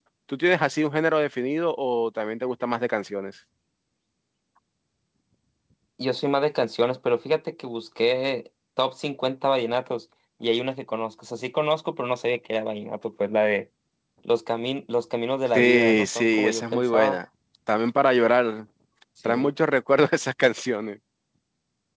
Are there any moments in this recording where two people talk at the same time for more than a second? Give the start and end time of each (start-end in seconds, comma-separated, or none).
15.5-17.2